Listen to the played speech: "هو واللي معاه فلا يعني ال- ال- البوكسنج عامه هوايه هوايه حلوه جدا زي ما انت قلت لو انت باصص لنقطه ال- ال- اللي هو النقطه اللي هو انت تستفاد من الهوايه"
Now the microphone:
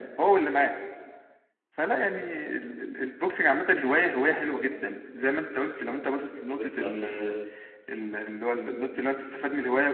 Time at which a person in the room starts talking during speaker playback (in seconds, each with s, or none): 6.5 s